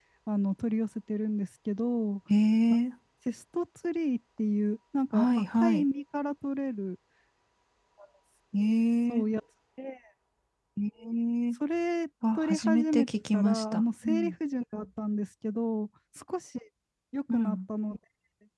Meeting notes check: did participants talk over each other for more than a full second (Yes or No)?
Yes